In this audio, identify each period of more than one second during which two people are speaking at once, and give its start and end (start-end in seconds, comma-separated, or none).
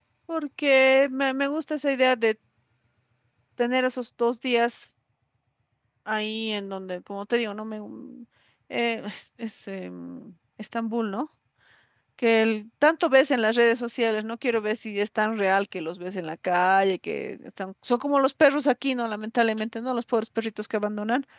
none